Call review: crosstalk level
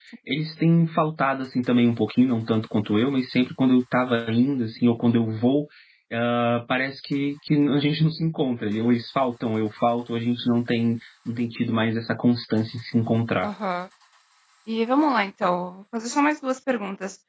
none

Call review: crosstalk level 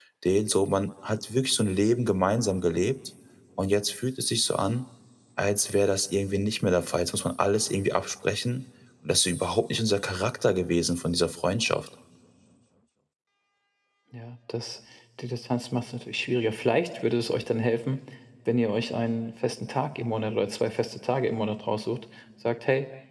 none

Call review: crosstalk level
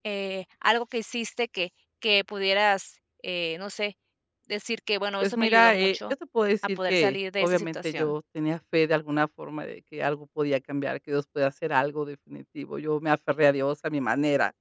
present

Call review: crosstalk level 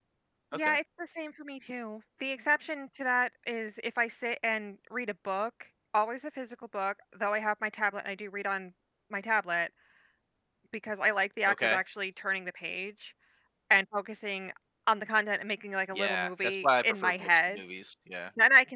present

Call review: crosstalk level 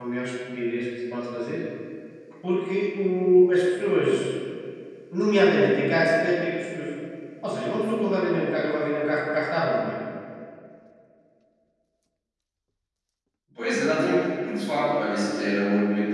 none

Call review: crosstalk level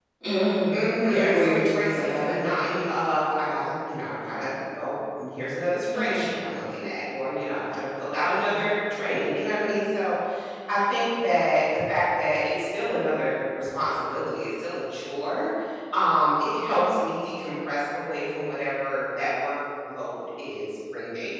present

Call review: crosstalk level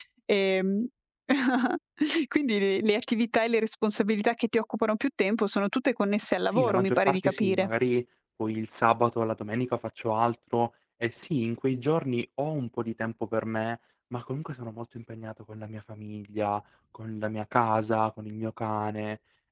present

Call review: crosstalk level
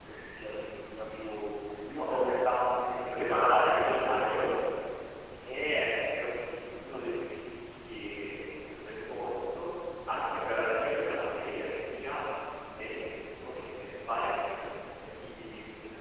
present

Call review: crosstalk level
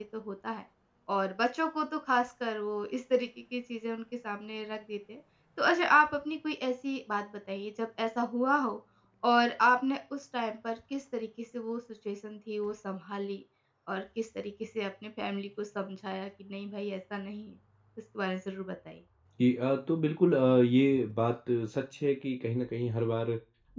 none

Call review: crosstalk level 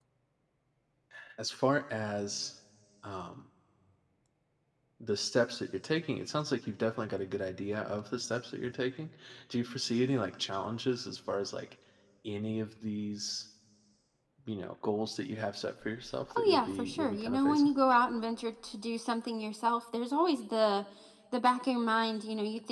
present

